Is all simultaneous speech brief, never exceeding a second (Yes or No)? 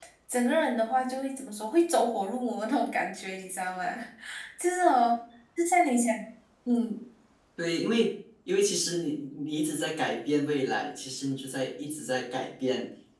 Yes